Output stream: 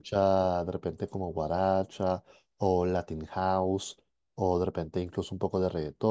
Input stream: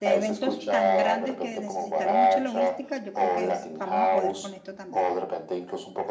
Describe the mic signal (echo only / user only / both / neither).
both